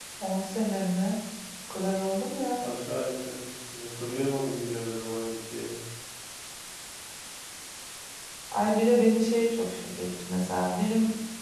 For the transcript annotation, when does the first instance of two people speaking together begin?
none

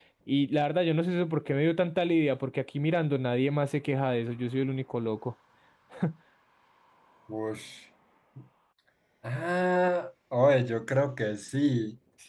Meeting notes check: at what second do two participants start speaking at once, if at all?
none

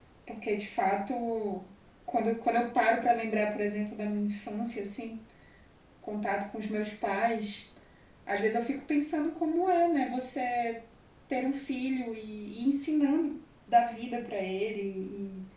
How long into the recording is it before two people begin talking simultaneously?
none

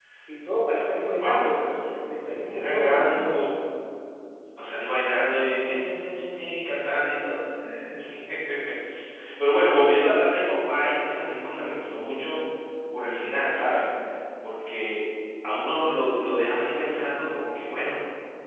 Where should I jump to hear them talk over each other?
0.7 s

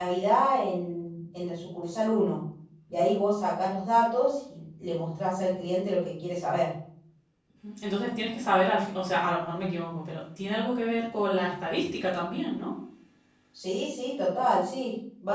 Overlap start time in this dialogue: none

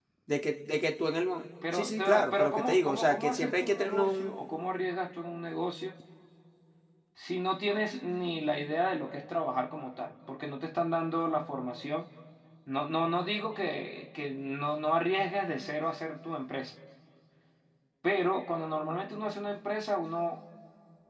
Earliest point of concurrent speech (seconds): 1.6 s

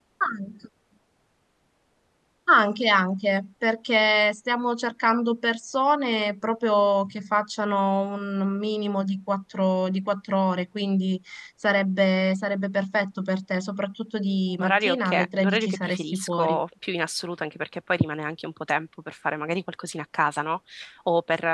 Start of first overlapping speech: 14.6 s

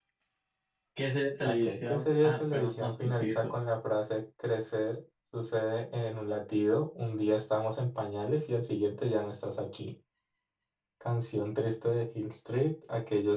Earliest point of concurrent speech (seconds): 1.4 s

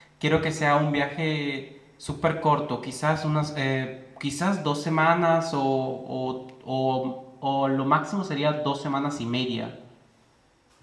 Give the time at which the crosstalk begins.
none

